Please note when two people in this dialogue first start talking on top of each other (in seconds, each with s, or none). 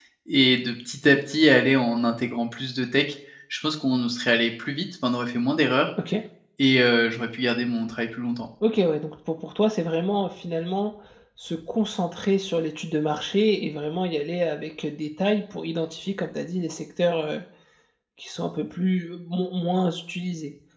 none